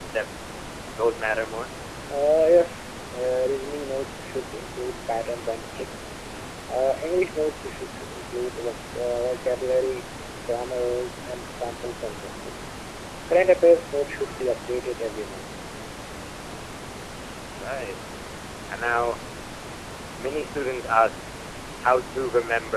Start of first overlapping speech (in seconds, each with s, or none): none